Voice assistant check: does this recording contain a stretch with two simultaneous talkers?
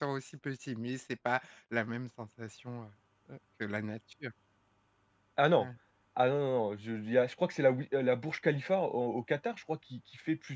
No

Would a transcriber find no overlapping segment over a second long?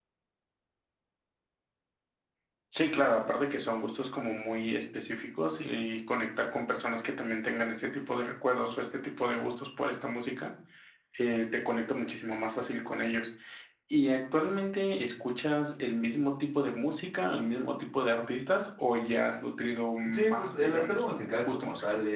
No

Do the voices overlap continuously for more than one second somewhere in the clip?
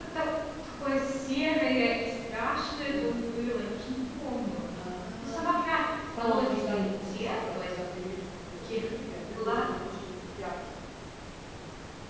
Yes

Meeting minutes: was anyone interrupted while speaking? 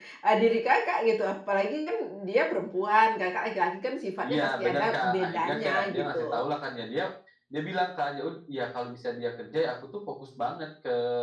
Yes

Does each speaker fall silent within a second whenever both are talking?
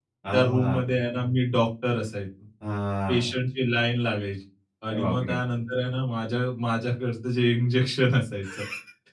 Yes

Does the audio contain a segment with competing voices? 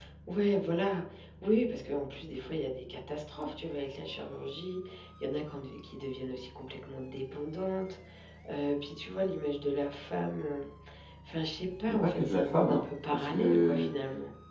Yes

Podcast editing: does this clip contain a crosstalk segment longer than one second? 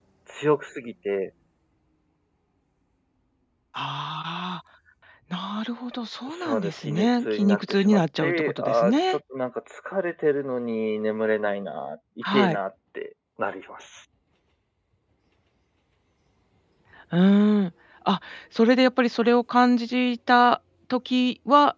Yes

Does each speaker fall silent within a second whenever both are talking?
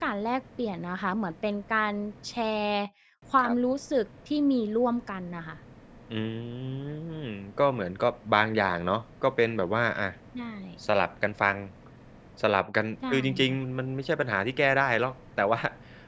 Yes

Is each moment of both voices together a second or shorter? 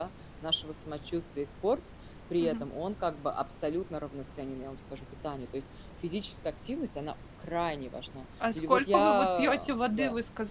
No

